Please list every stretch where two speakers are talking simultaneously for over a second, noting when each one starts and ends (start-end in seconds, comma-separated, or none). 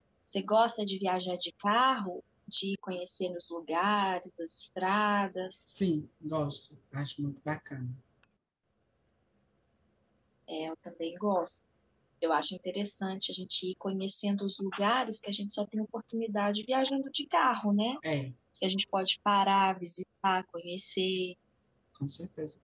none